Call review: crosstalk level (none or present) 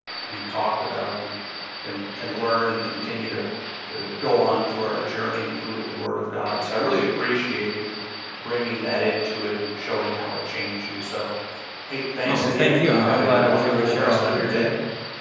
present